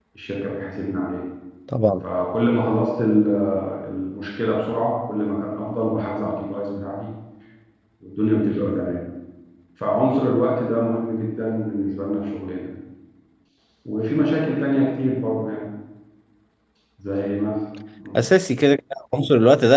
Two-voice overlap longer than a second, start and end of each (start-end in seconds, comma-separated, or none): none